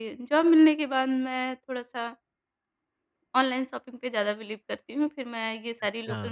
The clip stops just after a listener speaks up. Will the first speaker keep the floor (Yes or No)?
Yes